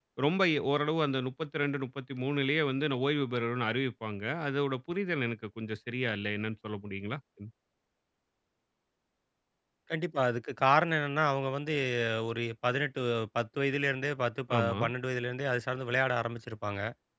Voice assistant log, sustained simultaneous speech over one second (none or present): none